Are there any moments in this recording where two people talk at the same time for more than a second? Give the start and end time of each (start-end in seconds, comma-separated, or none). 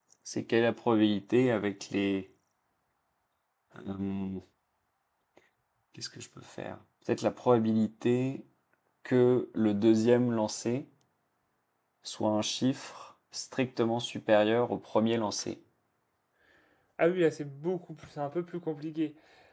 none